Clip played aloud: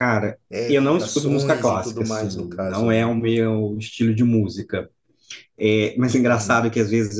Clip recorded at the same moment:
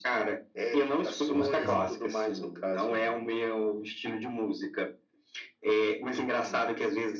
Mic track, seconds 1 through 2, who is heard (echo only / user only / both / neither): both